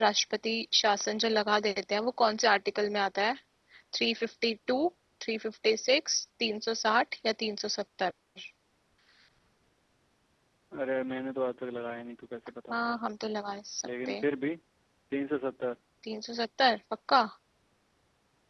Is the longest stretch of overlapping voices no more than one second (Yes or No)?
Yes